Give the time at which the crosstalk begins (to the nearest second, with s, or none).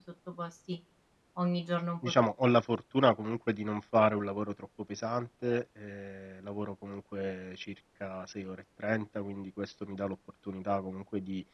none